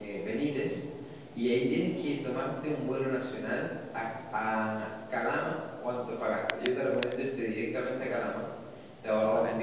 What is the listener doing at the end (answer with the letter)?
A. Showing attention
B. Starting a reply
A